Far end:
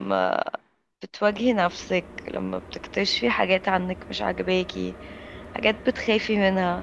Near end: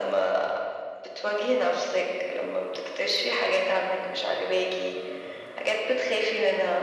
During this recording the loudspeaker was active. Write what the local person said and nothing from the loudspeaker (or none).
none